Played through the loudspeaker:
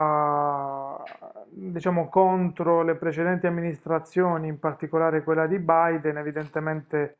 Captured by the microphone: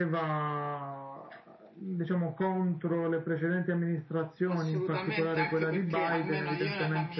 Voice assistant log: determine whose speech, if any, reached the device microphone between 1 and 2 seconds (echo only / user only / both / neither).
echo only